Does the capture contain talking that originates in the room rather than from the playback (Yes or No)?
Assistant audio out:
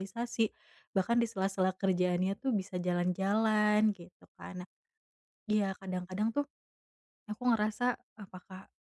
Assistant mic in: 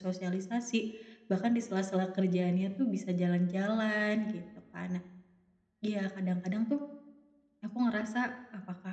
No